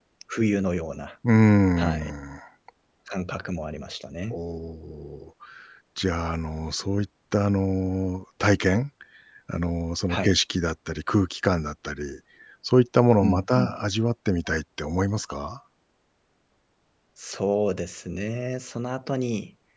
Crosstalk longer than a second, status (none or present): none